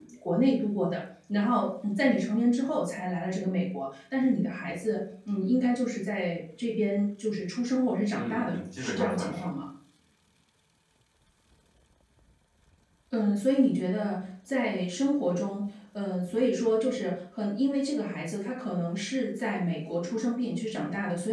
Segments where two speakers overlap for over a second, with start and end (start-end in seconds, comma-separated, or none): 8.2-9.5